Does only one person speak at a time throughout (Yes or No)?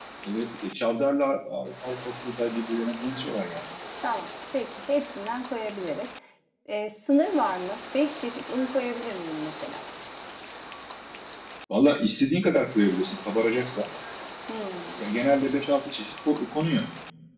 Yes